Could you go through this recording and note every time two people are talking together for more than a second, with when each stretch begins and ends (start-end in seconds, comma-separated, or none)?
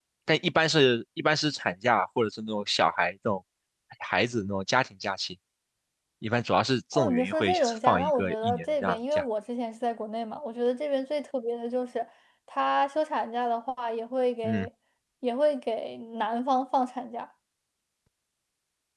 6.9-9.2